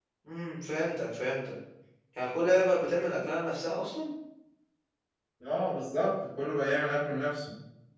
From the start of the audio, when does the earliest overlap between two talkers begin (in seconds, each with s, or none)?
none